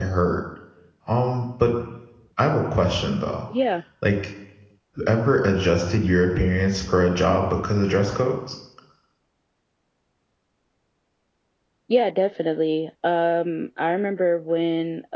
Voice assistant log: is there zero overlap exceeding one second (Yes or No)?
Yes